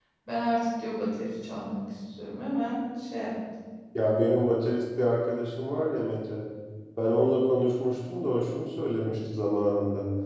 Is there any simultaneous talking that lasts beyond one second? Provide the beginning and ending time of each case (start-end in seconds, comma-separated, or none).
none